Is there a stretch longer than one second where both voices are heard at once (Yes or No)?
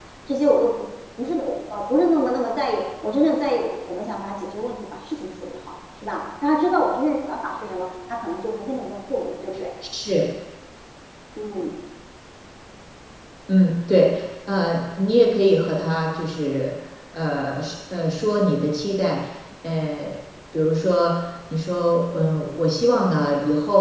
No